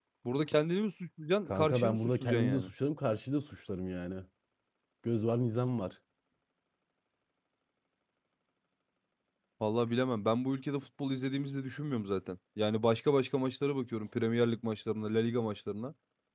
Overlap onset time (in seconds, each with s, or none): 1.5 s